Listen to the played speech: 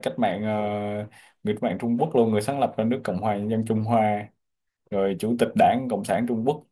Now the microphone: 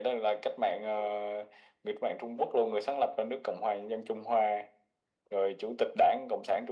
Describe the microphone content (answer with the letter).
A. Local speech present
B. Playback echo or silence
B